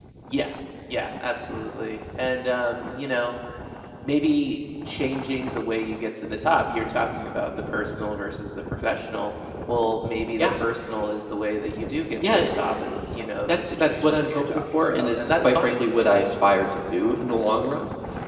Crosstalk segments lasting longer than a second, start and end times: 13.5-15.7

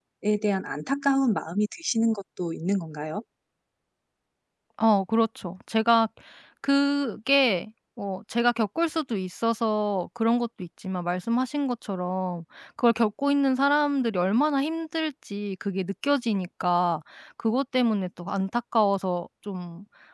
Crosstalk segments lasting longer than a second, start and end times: none

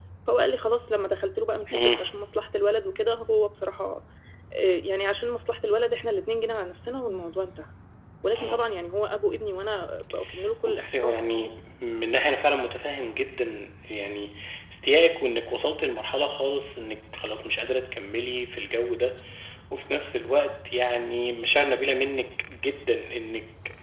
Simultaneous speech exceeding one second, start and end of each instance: none

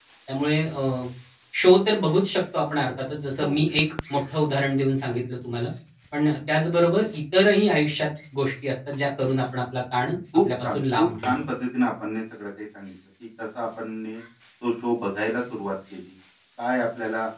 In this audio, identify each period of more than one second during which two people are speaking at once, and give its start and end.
10.0-11.3

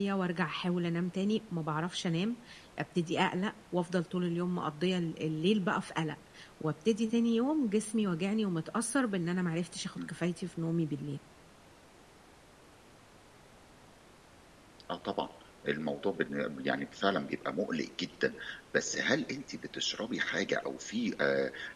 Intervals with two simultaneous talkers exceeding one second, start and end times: none

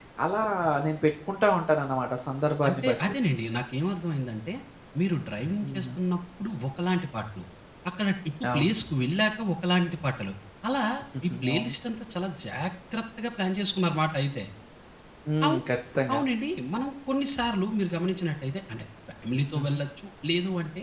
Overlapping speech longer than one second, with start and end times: none

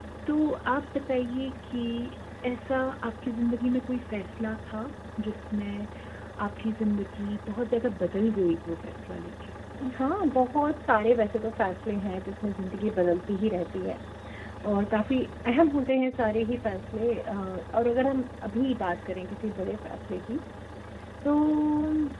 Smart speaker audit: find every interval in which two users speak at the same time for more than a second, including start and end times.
none

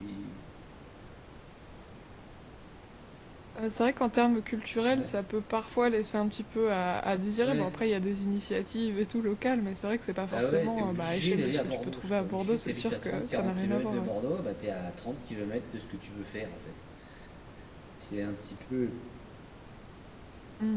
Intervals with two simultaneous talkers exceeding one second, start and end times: 10.3-14.1

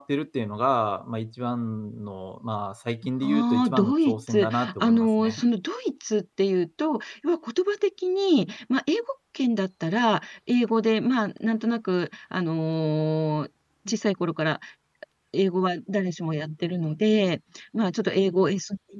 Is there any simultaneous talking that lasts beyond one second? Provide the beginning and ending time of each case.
3.2-5.4

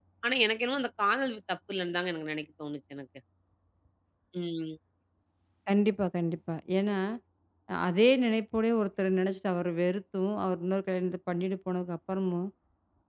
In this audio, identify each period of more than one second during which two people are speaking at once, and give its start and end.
none

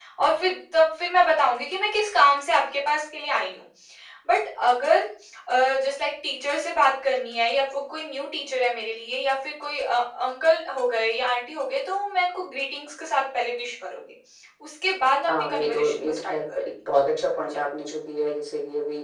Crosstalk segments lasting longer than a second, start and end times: 15.3-16.7

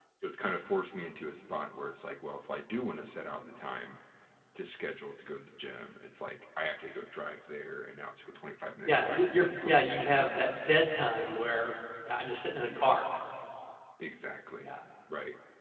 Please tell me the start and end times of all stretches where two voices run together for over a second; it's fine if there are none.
8.8-10.4

